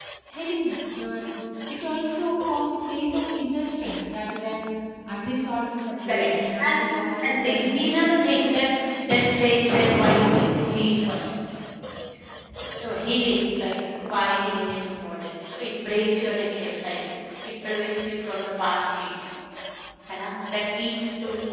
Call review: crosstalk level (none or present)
present